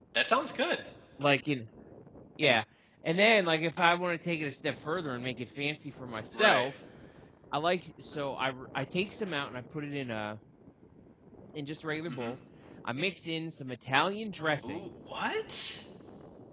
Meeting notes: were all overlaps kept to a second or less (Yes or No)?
Yes